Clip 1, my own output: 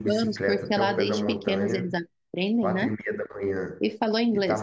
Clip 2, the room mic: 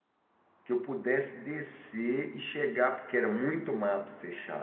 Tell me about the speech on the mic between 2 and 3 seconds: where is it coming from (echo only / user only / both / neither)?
user only